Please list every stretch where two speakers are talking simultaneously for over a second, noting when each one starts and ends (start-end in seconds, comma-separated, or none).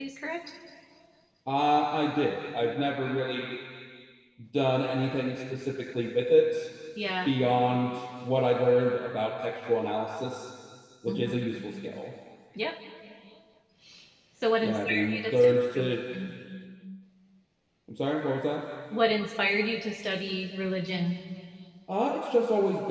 14.6-15.9